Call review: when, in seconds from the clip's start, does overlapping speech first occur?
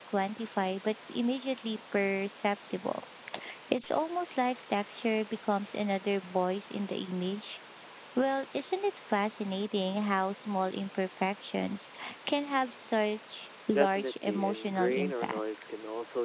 13.7 s

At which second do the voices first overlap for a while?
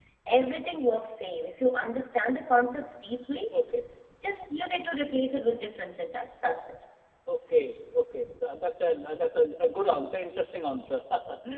none

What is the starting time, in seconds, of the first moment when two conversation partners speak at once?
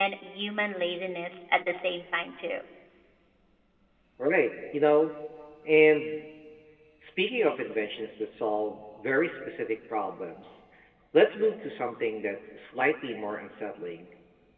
none

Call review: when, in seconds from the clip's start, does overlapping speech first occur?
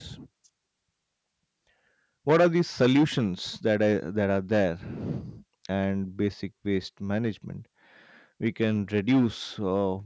none

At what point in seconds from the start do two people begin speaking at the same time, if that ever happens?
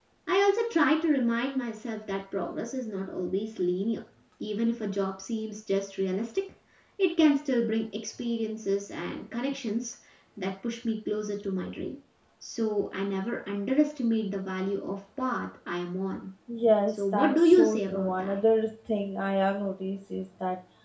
16.9 s

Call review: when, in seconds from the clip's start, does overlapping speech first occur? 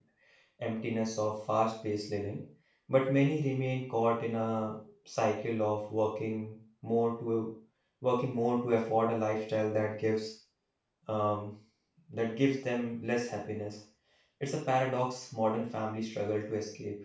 none

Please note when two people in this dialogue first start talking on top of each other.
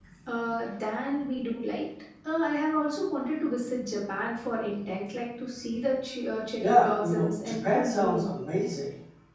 6.6 s

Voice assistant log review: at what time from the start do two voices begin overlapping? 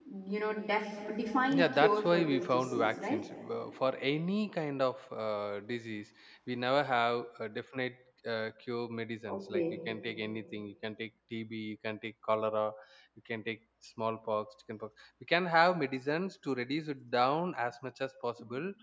1.5 s

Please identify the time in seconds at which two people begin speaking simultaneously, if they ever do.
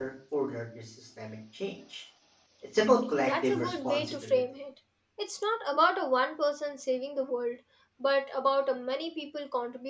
3.2 s

